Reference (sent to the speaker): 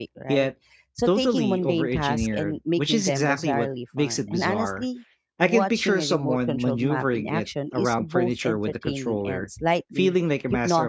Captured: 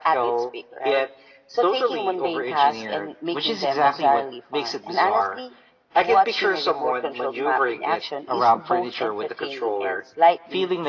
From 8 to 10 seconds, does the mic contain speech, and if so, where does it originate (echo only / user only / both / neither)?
echo only